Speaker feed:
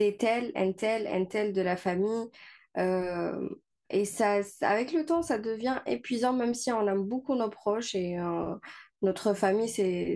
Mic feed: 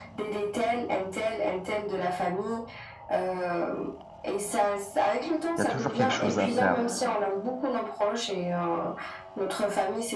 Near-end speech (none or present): present